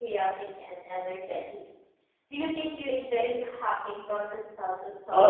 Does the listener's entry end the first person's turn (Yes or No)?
Yes